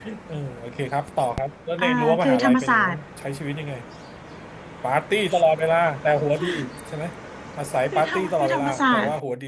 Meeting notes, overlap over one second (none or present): present